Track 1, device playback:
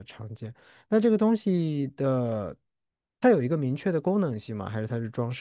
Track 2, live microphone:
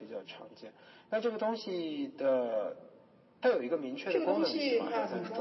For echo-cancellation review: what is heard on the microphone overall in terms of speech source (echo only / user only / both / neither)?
both